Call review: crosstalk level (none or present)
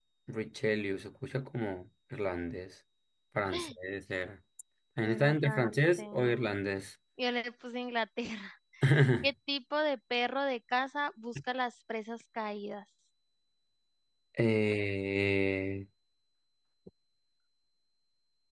present